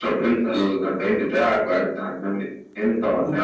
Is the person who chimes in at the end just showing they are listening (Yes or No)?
No